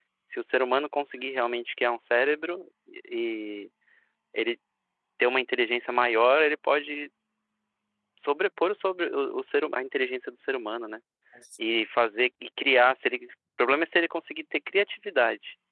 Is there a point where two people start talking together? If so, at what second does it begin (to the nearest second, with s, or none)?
none